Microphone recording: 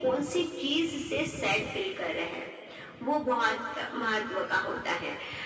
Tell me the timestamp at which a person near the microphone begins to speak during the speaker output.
none

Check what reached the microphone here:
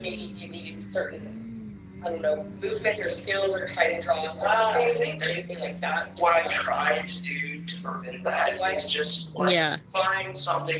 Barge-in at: 9 s

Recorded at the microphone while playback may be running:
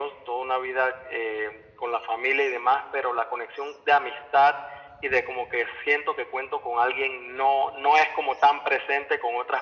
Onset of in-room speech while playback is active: none

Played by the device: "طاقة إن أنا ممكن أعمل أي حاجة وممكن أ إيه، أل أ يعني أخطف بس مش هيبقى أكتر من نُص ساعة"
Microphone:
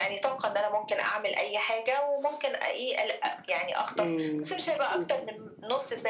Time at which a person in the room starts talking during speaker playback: 4 s

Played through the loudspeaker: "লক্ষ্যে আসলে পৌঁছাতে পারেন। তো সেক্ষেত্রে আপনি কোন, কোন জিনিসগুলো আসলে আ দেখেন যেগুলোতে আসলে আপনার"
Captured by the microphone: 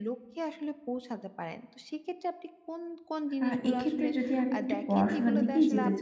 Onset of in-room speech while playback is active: 3 s

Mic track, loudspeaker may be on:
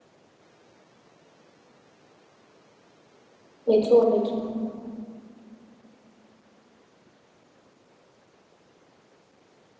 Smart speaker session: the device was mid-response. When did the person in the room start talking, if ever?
4 s

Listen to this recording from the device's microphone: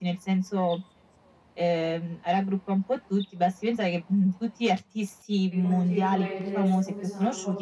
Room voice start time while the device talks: 5 s

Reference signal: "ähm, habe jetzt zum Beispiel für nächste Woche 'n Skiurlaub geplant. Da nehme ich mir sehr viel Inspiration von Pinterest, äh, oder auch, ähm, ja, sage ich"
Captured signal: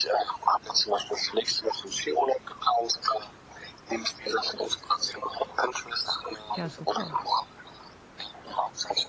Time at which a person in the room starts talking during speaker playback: 7 s

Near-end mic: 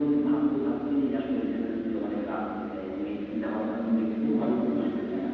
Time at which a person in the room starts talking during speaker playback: none

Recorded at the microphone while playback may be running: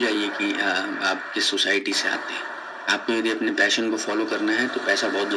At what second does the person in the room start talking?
none

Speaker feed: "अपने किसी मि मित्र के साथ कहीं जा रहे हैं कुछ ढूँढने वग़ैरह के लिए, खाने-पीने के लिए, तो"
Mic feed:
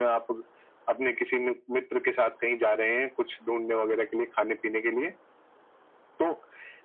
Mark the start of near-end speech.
none

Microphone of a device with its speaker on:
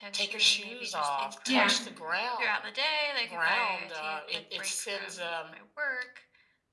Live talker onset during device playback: 1 s

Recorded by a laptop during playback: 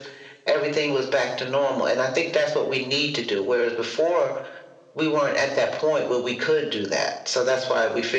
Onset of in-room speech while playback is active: none

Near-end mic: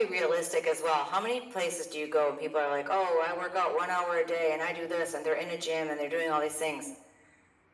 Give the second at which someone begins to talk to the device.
none

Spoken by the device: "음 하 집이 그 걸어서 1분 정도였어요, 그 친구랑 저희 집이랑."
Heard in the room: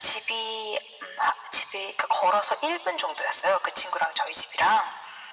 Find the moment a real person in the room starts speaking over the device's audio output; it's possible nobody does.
none

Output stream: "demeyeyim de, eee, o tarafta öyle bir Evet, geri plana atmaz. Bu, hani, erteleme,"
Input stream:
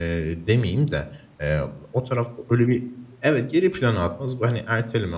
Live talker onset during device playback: none

